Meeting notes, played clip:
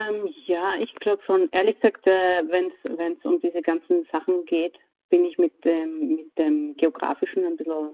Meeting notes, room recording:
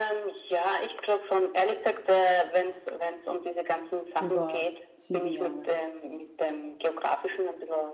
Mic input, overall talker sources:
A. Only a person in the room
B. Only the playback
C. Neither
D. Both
D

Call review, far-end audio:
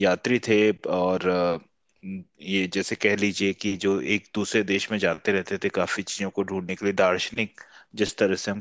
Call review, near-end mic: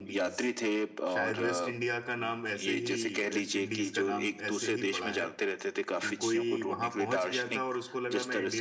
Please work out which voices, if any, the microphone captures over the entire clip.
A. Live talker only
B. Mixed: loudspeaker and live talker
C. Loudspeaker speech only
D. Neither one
B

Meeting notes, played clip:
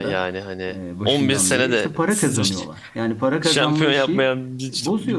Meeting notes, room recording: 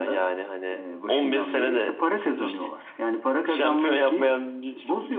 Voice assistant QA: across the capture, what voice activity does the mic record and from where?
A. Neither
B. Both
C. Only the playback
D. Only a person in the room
C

